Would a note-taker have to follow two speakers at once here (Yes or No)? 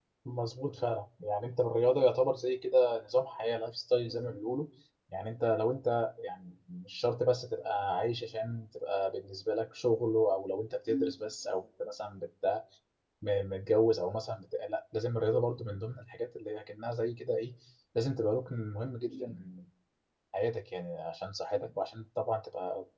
No